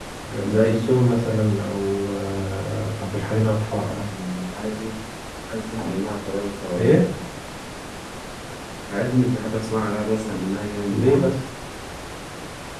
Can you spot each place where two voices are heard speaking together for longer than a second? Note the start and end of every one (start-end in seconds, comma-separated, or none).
none